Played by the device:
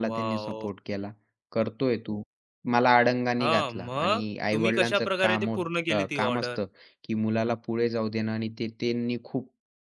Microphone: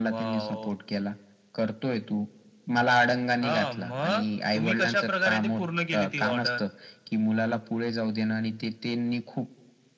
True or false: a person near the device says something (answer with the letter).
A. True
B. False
B